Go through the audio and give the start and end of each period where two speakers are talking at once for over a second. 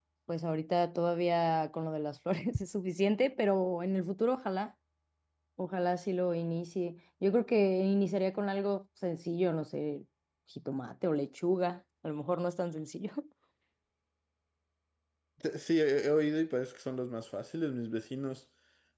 none

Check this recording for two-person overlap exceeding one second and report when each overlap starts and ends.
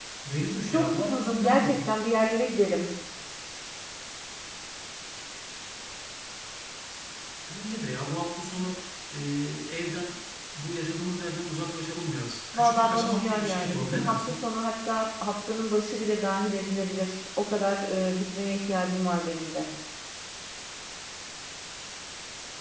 0.7-1.9, 12.5-14.4

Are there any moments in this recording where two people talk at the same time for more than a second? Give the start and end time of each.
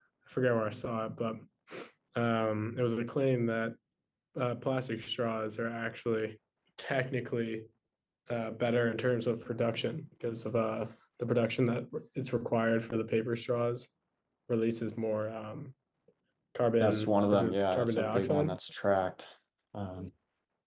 16.8-18.6

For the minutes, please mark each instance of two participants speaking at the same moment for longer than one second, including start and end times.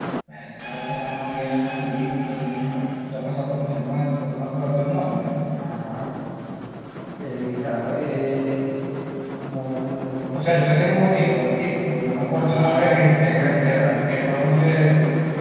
12.3-13.9

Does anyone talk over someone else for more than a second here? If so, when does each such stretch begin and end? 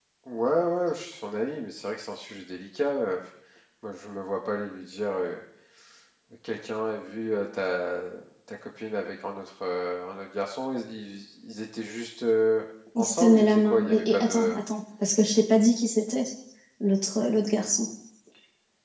13.0-14.6

